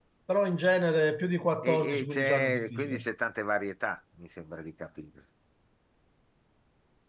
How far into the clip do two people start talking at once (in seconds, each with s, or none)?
1.6 s